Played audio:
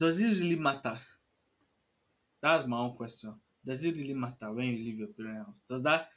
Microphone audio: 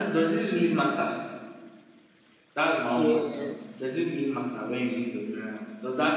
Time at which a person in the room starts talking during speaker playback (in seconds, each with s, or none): 3.0 s